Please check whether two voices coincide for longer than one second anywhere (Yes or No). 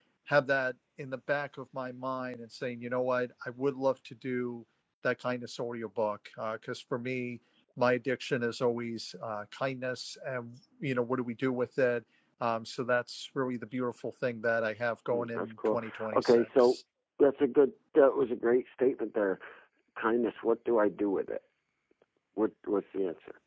Yes